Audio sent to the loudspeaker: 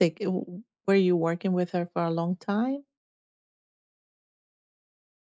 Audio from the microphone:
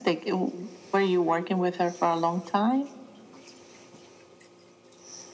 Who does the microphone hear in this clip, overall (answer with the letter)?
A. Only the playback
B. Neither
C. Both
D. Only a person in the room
A